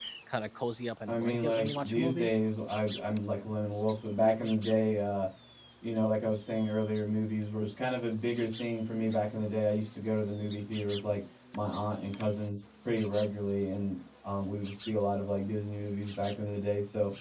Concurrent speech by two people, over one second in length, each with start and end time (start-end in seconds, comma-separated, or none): 1.1-2.3